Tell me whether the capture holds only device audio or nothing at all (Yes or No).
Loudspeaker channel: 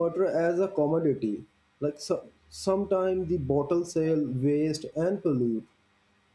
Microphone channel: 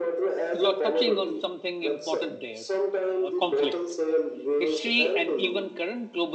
No